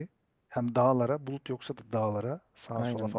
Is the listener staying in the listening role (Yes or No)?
No